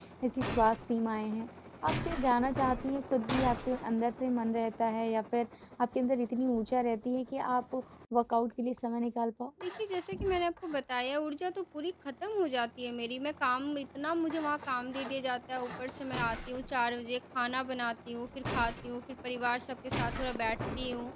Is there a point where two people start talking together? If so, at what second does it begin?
none

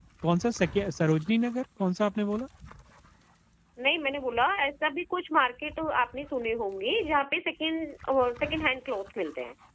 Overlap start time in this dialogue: none

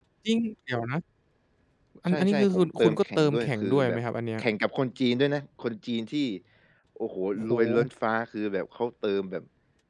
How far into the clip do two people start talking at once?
2 s

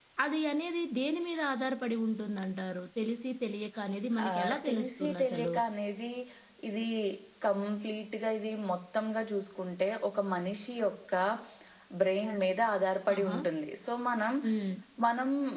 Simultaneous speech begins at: 4 s

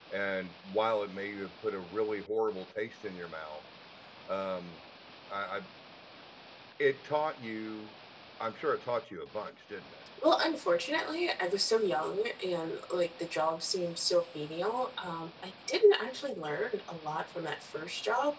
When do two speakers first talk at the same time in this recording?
none

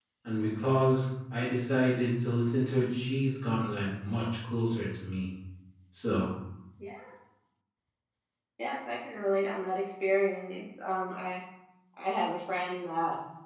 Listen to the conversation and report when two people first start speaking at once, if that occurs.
none

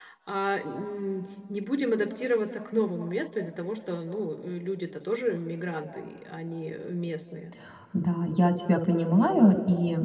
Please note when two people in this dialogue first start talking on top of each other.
none

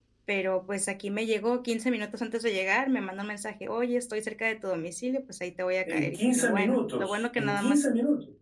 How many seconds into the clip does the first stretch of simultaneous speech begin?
6 s

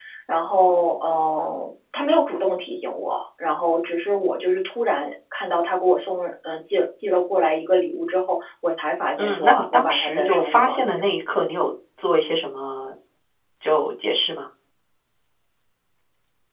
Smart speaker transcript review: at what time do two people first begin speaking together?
9 s

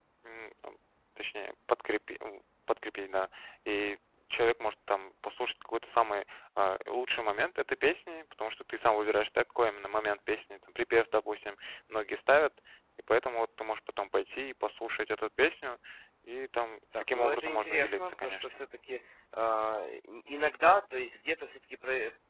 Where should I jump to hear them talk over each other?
17 s

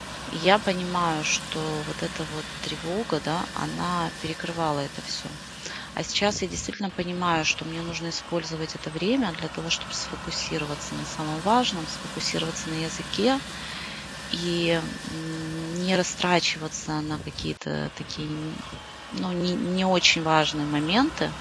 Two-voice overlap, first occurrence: none

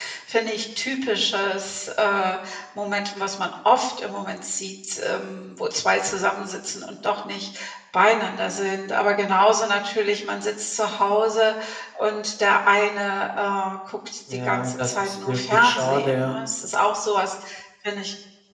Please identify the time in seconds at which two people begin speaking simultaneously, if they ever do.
14 s

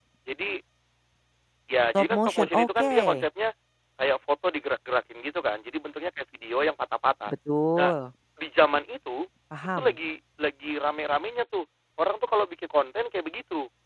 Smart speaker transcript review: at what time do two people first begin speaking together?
2 s

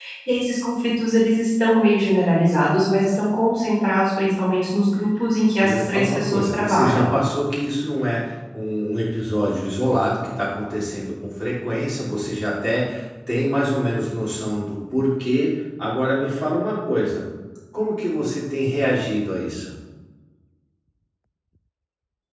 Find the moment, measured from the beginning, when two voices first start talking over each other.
6 s

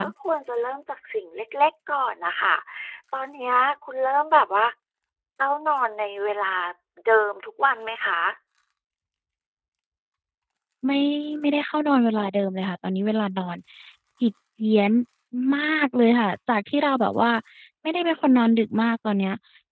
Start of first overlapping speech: none

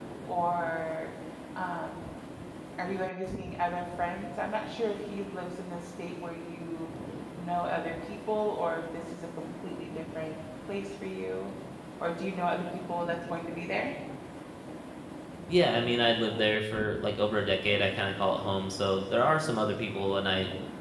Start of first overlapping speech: none

